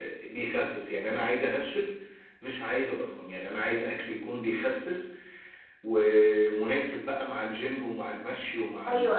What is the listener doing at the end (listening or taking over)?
taking over